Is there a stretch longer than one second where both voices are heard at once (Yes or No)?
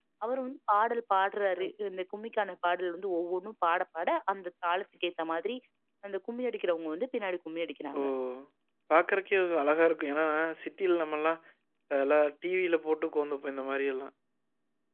No